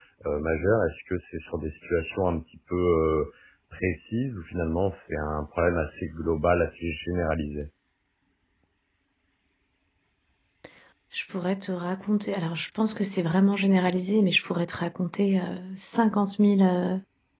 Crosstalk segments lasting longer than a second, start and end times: none

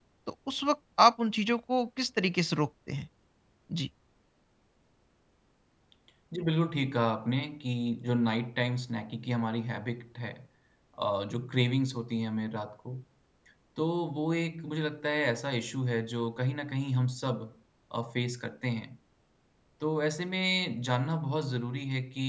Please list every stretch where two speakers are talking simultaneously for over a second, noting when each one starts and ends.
none

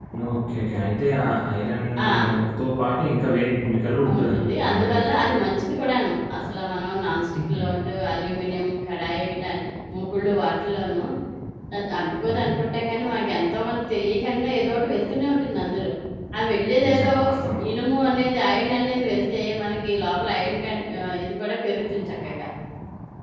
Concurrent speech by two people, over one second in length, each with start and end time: 4.2-5.4

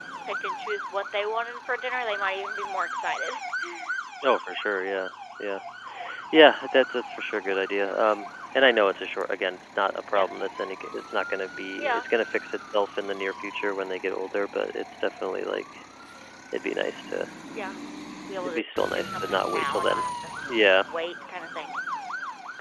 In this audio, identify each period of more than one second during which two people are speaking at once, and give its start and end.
18.4-20.0

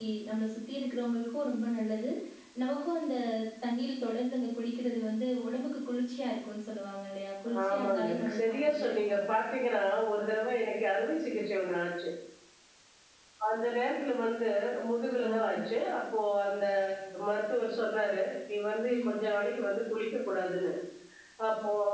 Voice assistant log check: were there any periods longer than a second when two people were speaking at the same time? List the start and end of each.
7.7-9.3

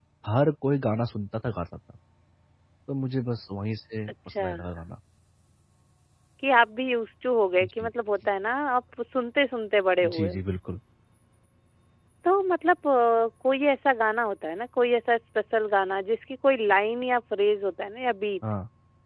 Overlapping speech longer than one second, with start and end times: none

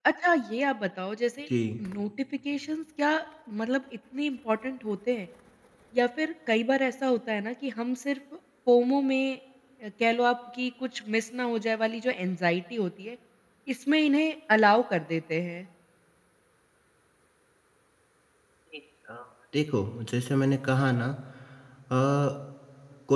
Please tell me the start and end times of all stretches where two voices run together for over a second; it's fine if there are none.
none

